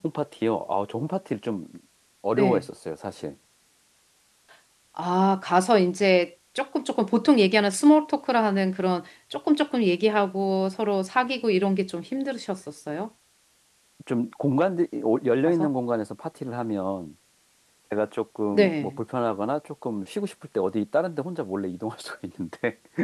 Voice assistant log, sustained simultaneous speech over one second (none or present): none